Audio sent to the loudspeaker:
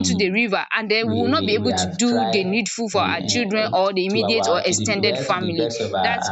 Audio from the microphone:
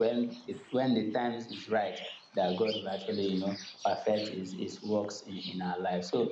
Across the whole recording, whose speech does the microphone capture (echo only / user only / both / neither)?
user only